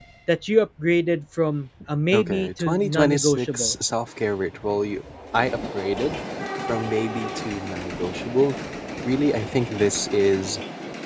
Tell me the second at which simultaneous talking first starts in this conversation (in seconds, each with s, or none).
2.1 s